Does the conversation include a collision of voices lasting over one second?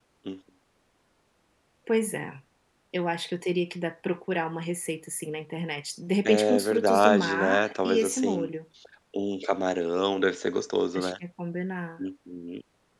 Yes, from 6.2 s

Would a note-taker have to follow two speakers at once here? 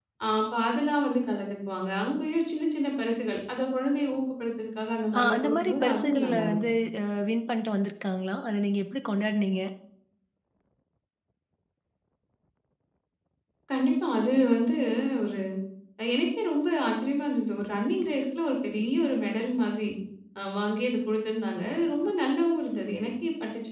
Yes, from 5.1 s

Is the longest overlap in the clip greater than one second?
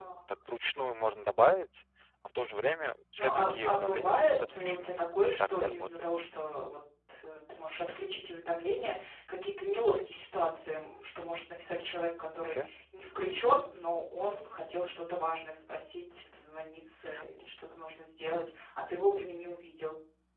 Yes, from 3.2 s

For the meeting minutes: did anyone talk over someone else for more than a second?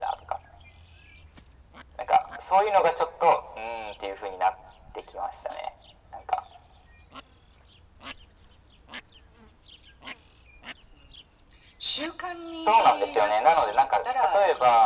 Yes, from 12.6 s

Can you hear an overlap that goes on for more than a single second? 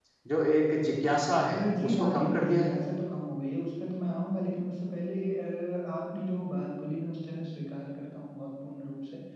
Yes, from 1.5 s

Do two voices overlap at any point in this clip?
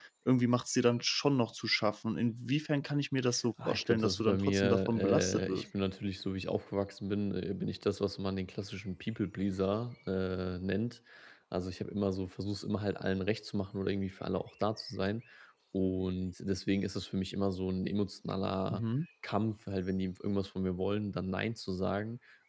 Yes, from 3.7 s

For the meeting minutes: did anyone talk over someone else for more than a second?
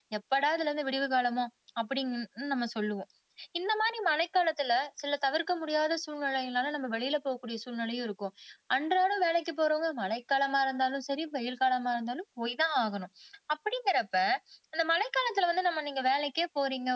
No

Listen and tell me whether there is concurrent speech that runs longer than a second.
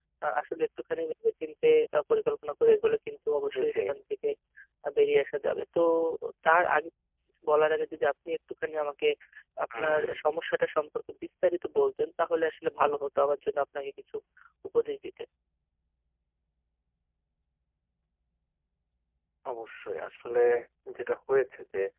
No

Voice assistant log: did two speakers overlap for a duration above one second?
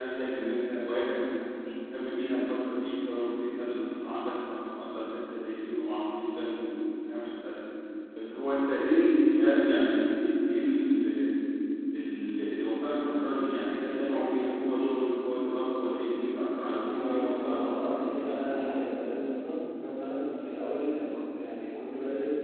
Yes, from 16.7 s

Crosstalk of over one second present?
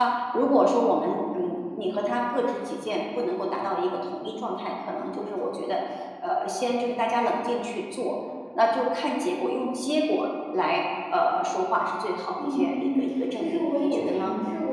Yes, from 12.4 s

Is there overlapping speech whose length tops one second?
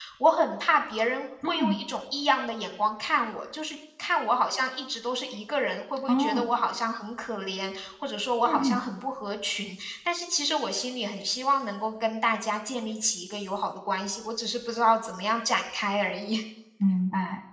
No

